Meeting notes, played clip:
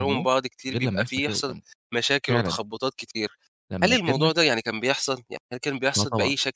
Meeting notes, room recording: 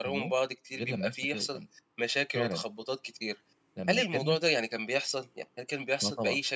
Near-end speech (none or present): none